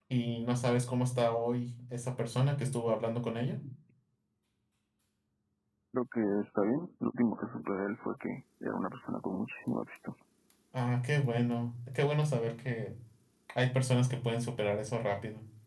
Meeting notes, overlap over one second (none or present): none